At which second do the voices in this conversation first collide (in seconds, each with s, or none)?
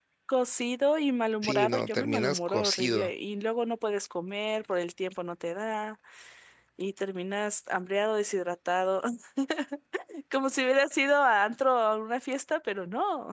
1.4 s